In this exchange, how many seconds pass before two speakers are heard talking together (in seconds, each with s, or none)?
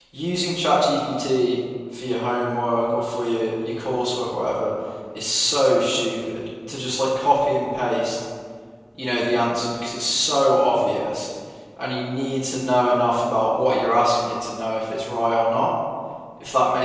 none